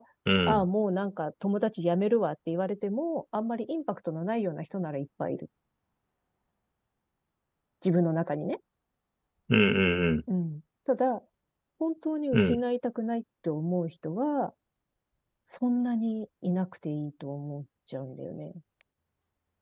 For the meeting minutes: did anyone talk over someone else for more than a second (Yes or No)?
No